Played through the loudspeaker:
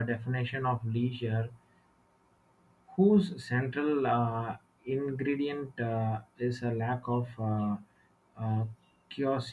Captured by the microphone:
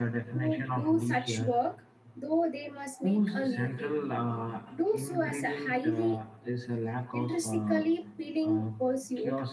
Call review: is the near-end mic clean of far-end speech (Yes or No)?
No